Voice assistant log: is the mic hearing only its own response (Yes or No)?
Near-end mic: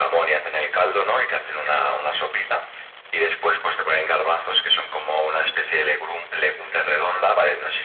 Yes